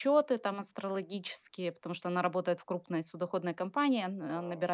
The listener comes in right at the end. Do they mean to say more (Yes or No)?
No